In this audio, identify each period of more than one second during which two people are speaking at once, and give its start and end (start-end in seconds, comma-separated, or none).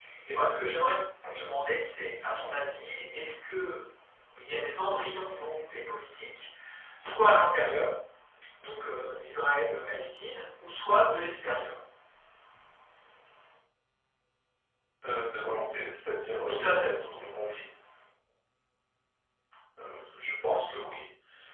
none